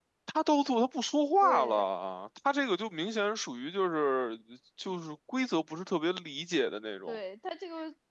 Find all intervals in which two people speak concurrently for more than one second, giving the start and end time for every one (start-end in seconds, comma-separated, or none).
none